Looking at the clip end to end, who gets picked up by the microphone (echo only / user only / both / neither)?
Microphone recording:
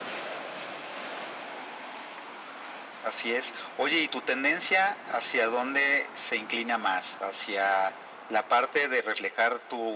echo only